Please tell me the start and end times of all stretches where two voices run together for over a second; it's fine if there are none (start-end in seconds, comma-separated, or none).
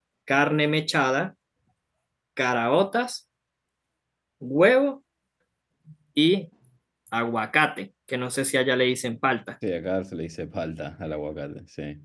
none